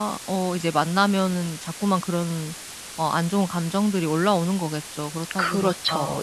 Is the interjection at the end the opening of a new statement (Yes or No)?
Yes